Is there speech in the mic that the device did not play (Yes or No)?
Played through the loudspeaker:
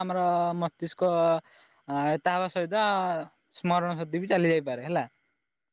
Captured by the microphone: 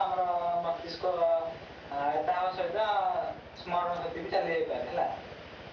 No